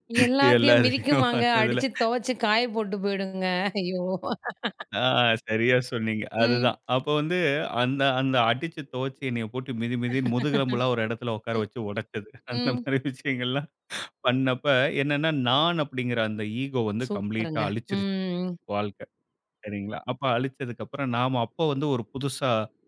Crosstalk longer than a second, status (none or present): present